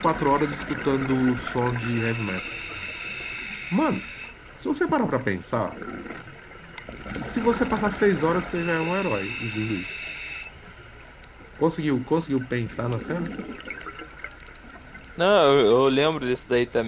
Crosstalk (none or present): none